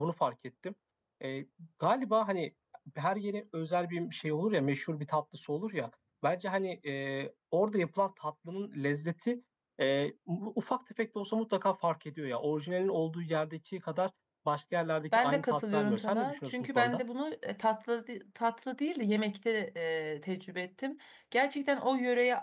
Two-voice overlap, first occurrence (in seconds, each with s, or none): 15.1 s